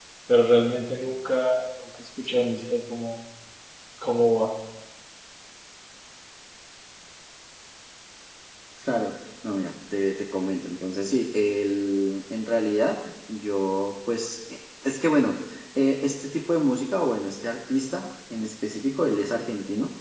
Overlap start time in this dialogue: none

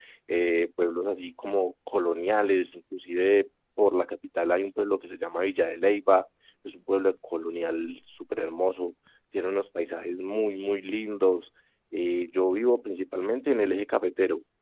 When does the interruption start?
none

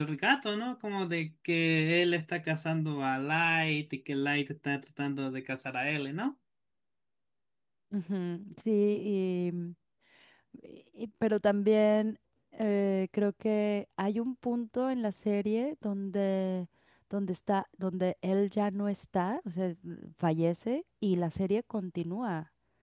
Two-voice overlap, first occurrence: none

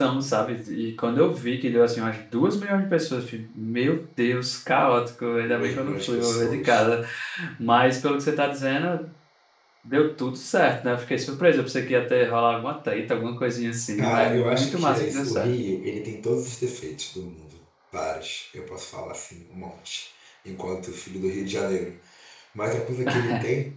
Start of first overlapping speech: 5 s

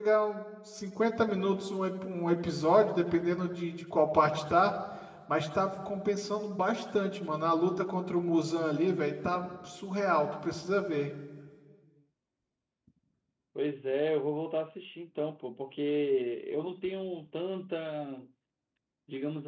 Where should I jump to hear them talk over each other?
none

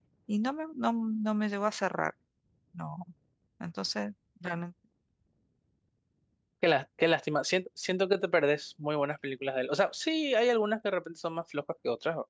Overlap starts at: none

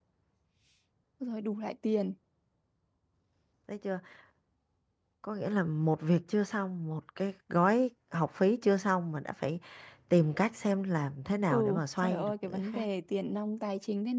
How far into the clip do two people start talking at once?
11 s

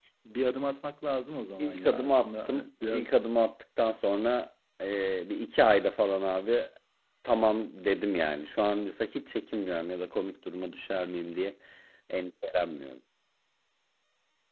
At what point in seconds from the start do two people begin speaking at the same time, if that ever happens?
2 s

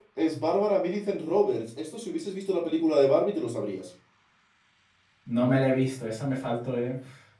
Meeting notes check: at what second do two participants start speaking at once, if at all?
none

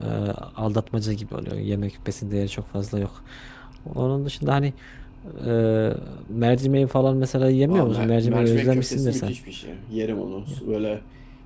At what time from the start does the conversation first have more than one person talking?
8 s

